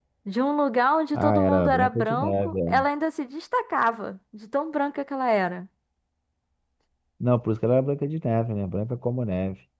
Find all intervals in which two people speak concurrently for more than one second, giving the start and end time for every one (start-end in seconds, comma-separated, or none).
1.1-2.8